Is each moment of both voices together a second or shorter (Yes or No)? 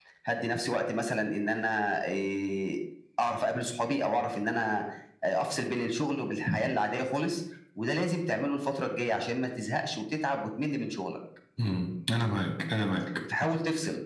Yes